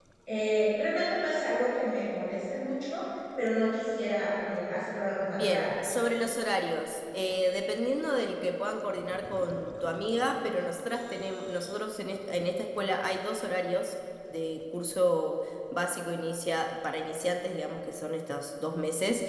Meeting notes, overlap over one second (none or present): none